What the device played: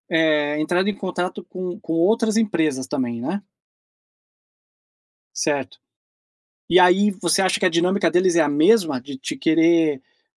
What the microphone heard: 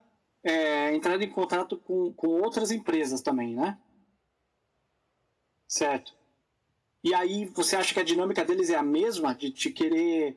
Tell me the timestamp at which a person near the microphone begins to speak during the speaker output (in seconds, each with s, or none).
none